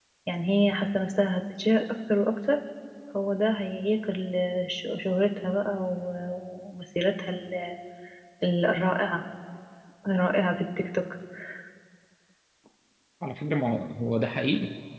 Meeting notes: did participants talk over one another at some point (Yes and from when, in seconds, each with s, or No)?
No